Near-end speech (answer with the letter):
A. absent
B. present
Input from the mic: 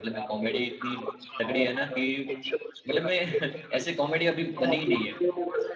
B